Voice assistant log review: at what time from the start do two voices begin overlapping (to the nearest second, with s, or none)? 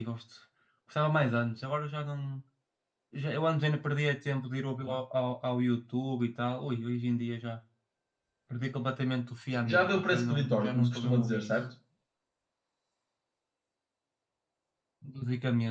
10 s